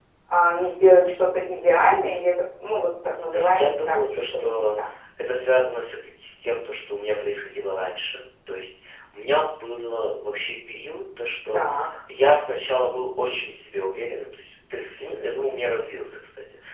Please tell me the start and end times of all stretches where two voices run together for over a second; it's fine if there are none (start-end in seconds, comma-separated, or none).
3.3-4.6